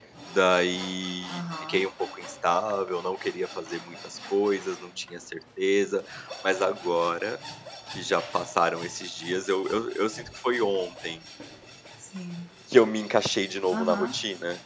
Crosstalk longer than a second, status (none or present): none